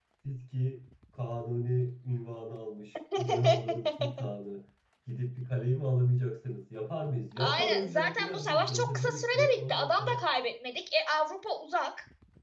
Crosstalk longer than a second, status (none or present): present